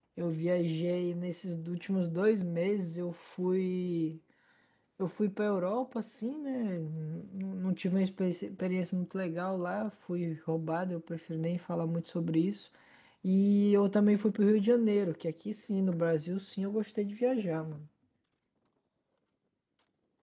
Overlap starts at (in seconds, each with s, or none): none